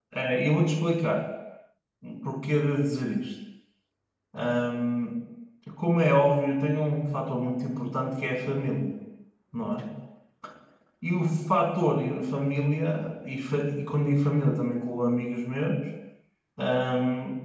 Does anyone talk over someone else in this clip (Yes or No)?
No